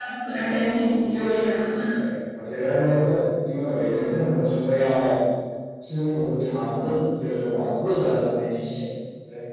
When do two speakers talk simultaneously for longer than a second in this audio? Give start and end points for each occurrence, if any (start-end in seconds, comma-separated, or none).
none